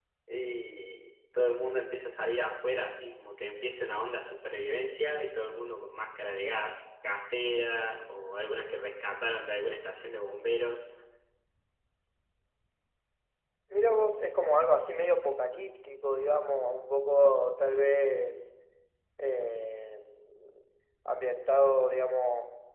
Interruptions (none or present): none